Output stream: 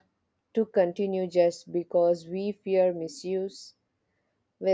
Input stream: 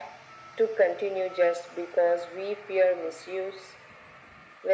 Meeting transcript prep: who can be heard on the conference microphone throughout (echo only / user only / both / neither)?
echo only